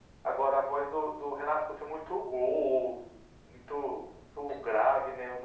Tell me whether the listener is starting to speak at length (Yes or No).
No